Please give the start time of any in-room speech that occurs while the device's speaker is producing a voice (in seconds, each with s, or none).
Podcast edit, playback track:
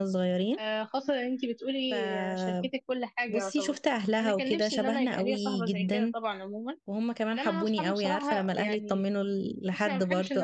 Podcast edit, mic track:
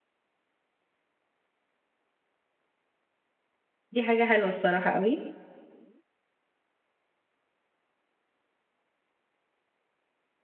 3.9 s